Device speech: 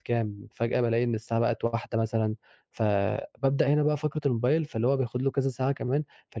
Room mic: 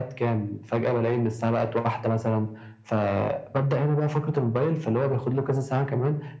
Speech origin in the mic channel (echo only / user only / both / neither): echo only